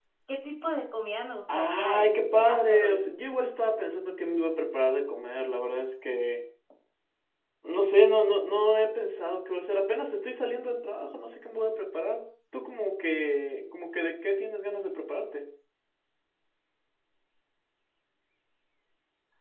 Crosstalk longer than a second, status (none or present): present